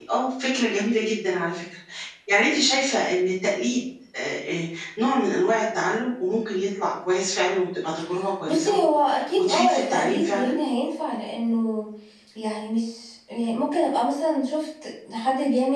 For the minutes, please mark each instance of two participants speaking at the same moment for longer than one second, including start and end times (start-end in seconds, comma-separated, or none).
9.4-10.6